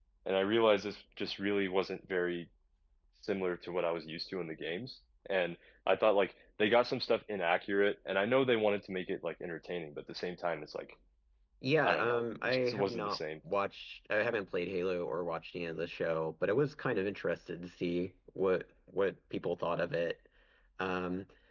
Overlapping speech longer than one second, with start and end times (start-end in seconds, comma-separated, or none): 11.8-13.2